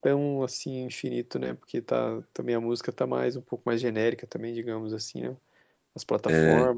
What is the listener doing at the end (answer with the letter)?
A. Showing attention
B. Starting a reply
B